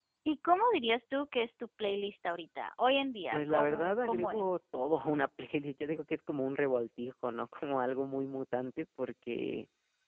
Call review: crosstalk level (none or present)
present